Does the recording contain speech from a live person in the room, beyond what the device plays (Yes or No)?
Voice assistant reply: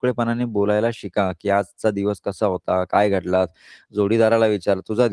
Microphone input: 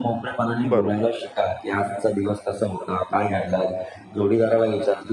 Yes